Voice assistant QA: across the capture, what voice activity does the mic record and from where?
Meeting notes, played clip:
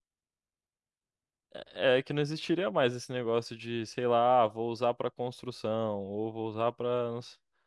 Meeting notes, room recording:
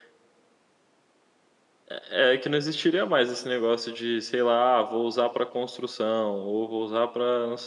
echo only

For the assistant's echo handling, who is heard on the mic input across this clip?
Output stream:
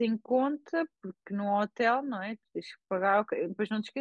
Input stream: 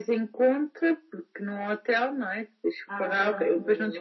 both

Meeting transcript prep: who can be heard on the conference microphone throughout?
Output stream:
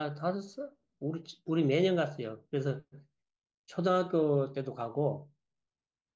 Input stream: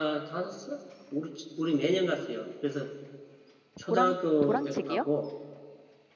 both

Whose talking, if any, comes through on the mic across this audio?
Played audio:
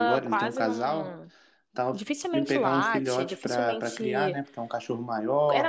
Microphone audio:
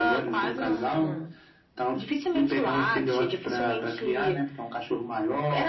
echo only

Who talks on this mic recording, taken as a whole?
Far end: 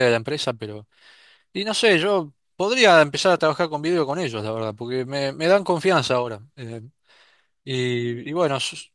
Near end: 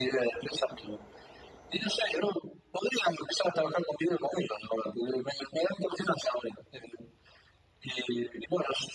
echo only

